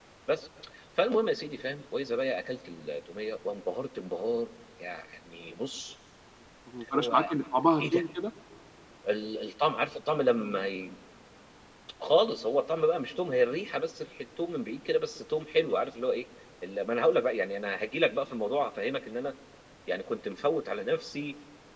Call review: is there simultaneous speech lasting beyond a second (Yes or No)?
No